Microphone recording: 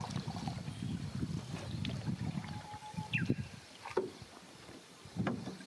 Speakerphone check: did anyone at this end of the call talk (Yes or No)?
No